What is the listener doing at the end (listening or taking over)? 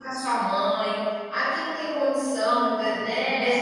listening